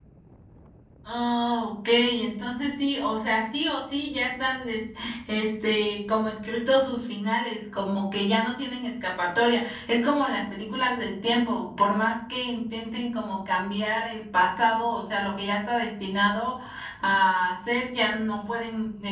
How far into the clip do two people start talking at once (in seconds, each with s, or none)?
none